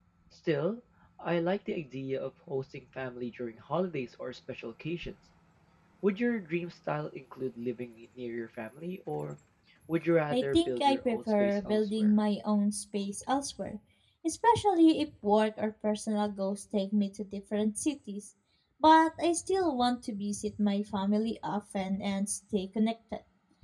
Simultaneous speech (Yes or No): Yes